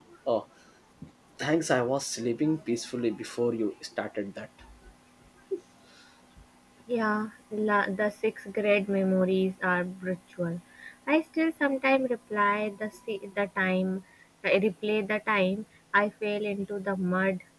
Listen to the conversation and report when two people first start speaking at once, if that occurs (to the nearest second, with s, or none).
none